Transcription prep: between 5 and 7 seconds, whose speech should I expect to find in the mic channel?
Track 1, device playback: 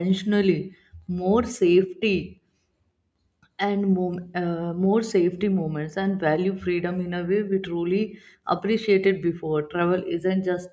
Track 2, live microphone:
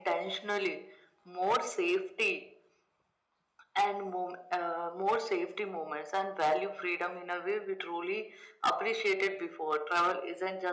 echo only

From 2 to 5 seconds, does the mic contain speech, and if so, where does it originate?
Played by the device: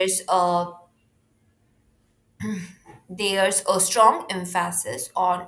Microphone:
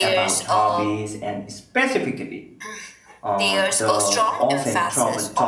both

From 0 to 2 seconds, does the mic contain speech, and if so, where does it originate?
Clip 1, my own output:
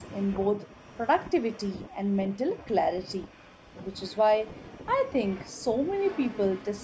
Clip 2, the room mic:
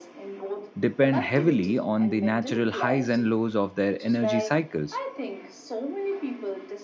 both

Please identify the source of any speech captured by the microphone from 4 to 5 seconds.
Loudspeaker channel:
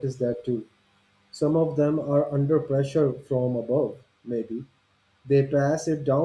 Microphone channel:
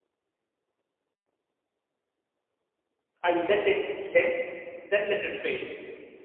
user only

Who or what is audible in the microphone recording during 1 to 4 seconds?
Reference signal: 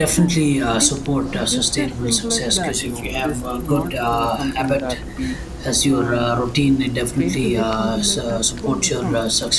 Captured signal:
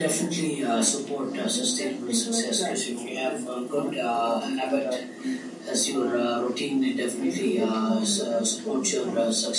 echo only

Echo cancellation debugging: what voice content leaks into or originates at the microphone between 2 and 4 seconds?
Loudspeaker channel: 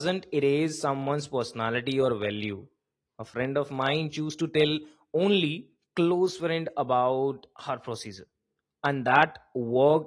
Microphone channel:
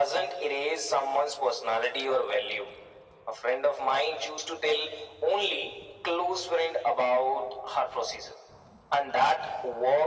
echo only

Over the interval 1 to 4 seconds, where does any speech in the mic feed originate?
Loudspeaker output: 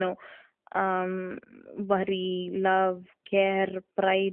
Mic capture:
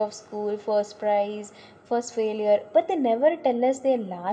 user only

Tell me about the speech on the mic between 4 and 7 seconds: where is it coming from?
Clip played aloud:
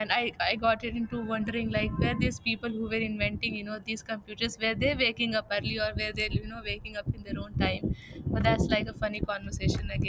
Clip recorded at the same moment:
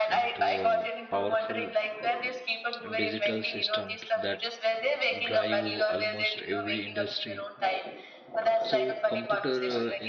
both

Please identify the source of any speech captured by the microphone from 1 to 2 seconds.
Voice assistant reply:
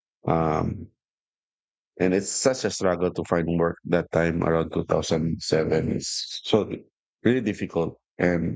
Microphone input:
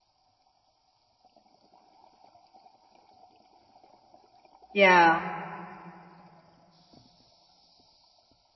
neither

